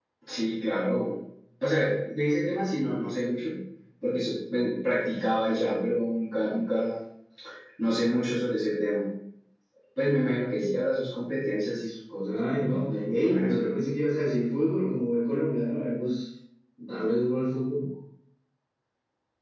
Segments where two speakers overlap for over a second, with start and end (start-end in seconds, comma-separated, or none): 12.3-13.6